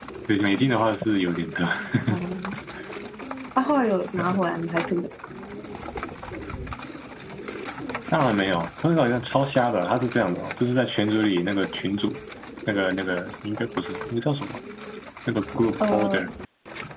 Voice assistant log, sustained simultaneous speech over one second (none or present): none